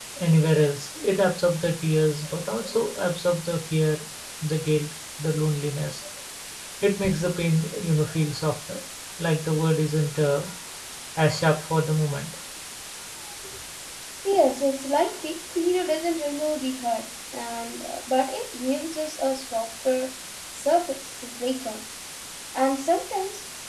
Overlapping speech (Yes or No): No